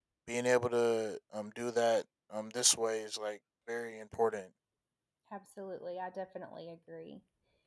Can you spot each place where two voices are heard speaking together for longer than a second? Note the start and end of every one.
none

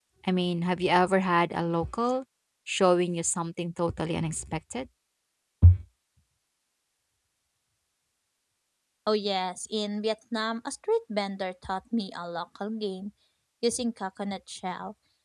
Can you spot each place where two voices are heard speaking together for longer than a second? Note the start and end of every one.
none

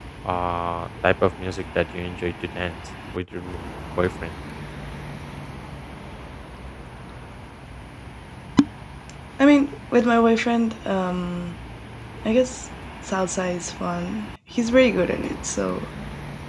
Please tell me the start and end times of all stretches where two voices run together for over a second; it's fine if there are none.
none

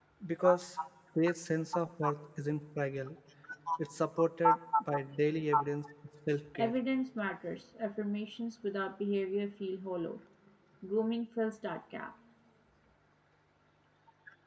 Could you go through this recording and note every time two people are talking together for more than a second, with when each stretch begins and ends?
none

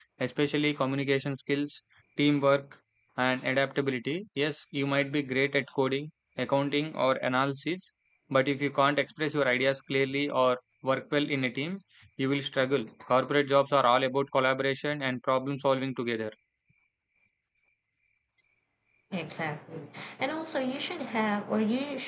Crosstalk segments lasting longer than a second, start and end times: none

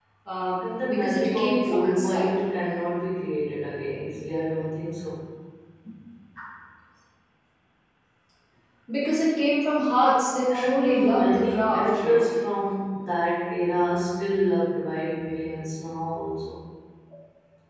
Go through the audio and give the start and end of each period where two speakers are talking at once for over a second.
0.6-2.4, 10.5-12.3

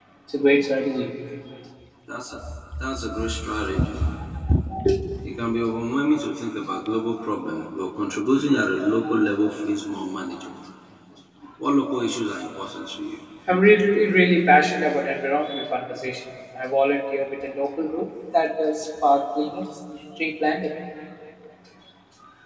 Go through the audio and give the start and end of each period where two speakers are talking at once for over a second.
none

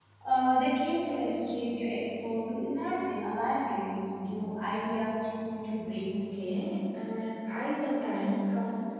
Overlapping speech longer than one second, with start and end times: none

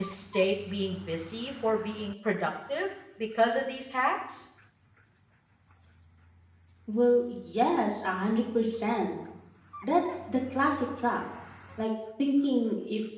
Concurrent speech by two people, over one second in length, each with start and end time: none

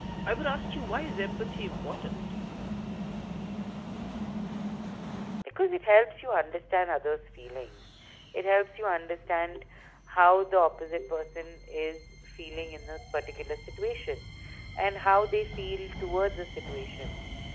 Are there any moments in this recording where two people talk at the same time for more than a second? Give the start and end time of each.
none

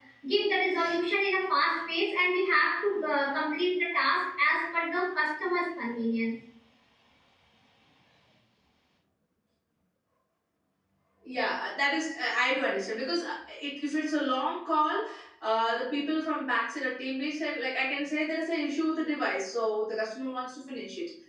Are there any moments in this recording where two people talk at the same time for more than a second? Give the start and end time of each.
none

